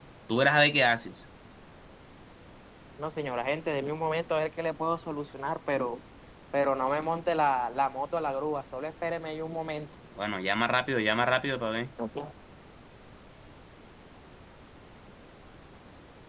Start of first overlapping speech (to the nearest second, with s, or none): none